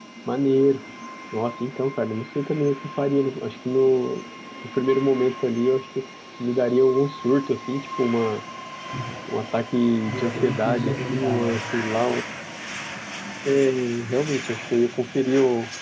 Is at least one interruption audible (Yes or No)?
Yes